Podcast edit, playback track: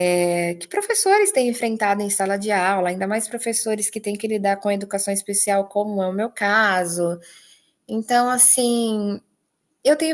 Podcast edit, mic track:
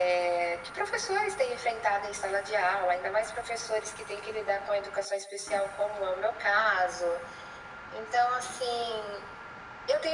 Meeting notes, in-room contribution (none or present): none